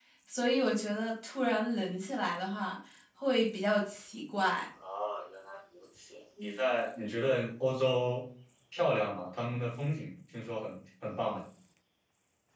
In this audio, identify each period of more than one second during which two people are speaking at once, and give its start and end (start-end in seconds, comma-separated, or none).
none